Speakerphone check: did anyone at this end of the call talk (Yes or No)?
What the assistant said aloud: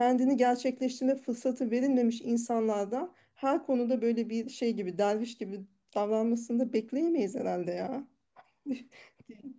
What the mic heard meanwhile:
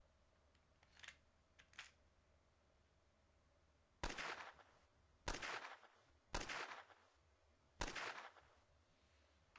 No